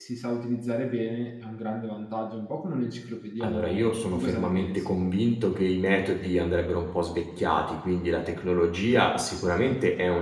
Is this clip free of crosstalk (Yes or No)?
No